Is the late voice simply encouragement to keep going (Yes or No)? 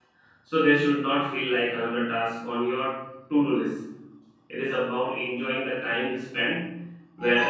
Yes